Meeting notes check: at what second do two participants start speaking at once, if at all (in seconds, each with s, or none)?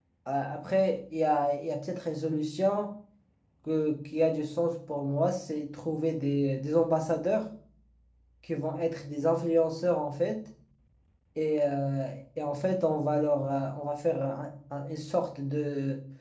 none